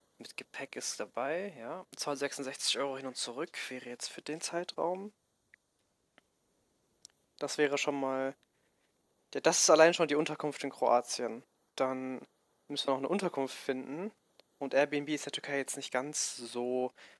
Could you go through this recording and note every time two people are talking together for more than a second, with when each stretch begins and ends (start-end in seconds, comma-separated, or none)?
none